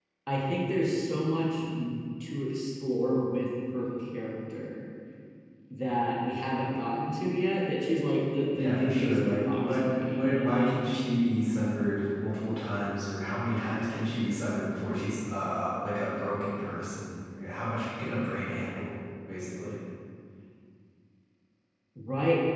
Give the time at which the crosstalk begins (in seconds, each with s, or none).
8.6 s